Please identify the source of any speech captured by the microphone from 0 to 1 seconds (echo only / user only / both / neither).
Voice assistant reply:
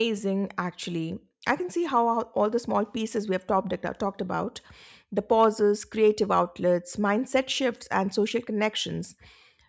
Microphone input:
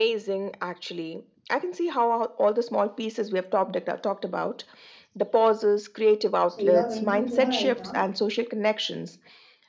echo only